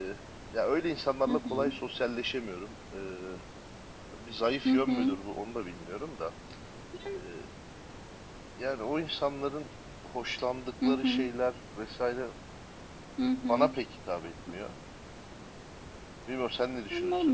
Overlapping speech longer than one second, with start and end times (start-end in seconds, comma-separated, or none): none